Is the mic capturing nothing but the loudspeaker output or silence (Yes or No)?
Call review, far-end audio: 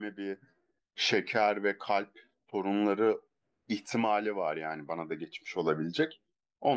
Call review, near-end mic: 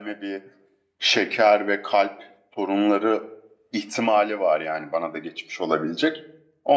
Yes